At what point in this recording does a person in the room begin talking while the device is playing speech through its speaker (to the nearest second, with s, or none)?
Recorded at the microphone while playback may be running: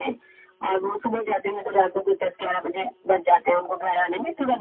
none